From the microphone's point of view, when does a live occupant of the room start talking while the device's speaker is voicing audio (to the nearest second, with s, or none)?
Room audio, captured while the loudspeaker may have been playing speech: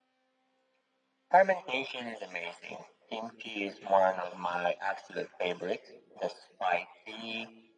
none